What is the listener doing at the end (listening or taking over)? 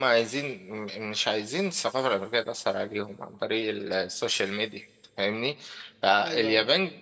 listening